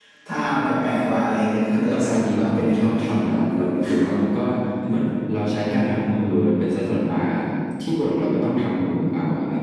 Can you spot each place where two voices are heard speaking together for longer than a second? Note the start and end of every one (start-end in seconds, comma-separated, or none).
1.7-3.2